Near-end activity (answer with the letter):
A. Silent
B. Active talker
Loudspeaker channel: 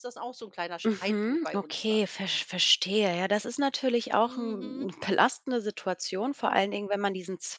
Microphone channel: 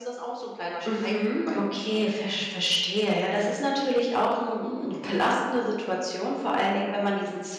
A